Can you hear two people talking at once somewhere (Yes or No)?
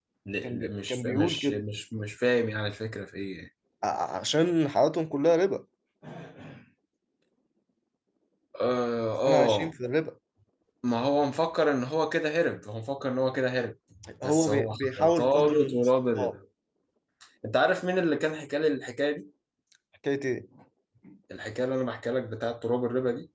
Yes